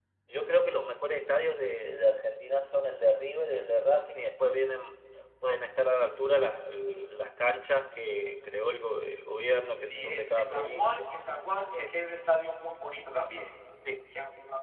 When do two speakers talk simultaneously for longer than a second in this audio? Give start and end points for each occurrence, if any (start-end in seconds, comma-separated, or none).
9.8-11.1